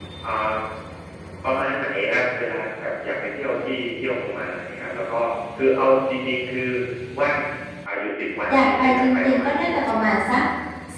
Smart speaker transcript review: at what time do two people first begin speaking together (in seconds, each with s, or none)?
8.5 s